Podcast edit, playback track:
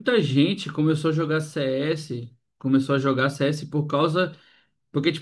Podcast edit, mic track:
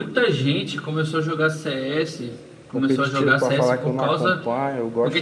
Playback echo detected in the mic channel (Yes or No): Yes